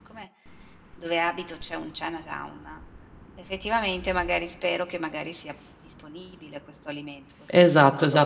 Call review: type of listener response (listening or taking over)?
taking over